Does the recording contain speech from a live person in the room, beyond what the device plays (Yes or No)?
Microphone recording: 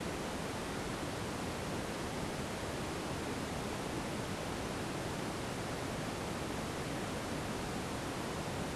No